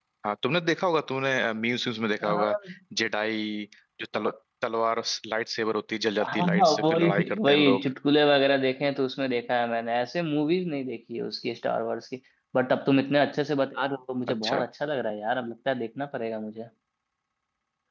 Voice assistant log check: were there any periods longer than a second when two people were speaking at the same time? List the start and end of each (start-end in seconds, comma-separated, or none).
6.3-7.9